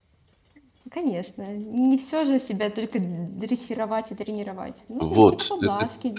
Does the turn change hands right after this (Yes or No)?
Yes